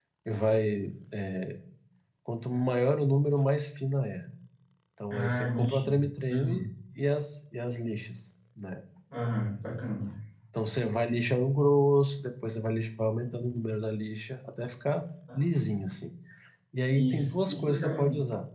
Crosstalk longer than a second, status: present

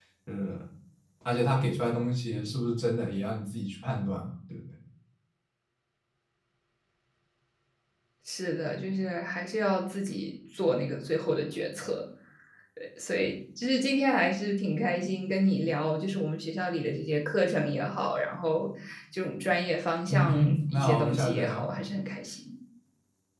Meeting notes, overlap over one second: present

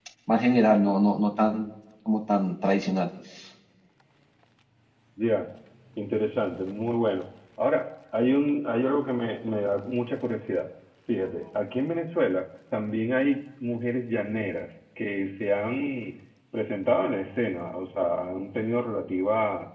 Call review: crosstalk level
none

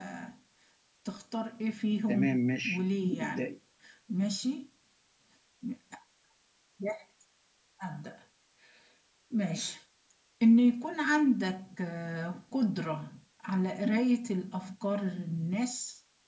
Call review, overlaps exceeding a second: present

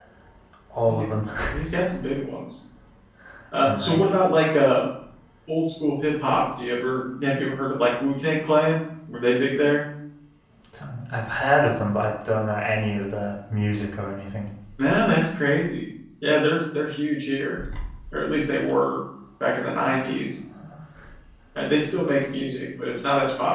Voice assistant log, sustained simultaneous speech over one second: none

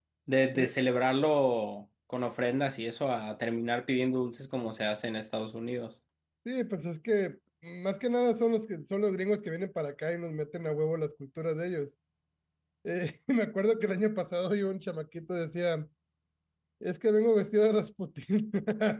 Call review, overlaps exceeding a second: none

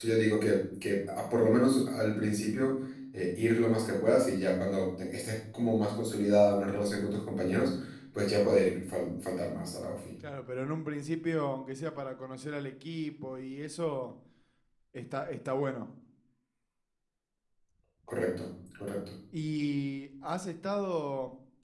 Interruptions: none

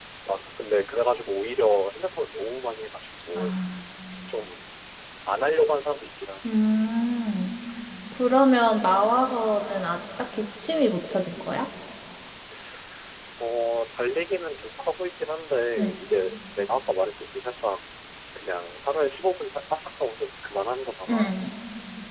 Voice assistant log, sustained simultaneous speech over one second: none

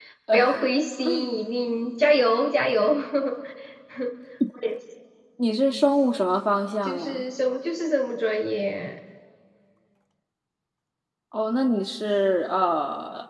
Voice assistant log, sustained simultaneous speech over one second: none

